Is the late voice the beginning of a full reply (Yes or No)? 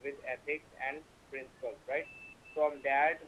No